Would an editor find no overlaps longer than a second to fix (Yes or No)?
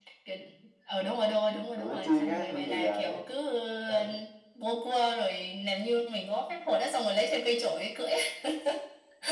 No